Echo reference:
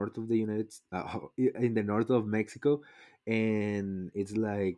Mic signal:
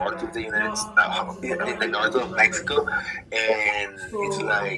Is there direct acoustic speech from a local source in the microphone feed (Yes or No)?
Yes